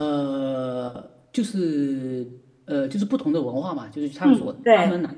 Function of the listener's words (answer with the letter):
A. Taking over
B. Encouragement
B